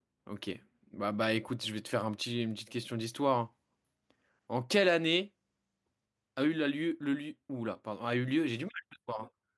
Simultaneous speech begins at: none

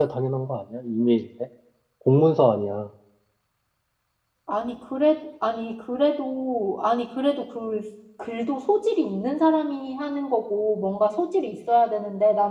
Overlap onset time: none

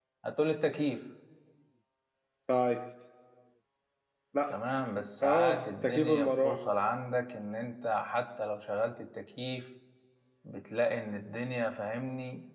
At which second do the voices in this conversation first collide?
5.2 s

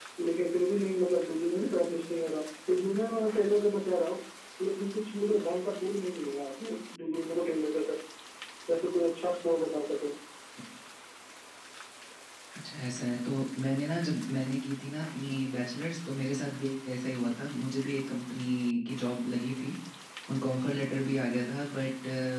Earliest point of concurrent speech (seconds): none

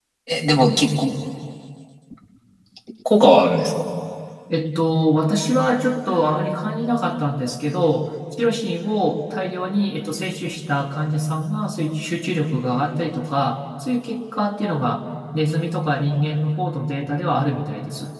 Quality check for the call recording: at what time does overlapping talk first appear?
none

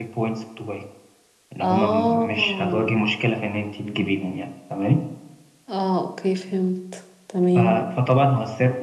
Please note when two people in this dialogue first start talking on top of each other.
1.6 s

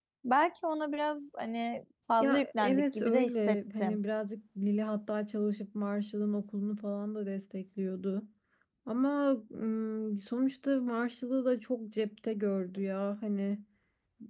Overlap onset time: 2.2 s

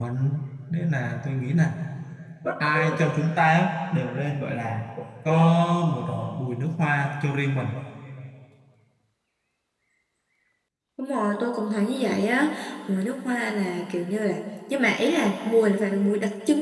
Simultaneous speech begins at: none

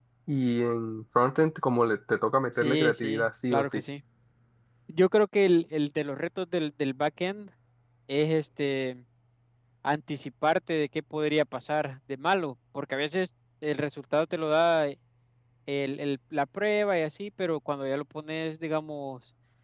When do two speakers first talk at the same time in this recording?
2.5 s

